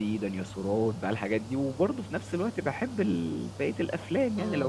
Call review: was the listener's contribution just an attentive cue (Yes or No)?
Yes